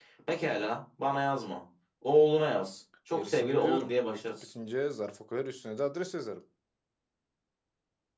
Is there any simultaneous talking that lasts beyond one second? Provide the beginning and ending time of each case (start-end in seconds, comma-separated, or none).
3.2-4.5